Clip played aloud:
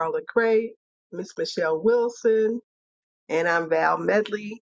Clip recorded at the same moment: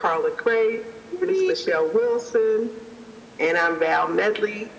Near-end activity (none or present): present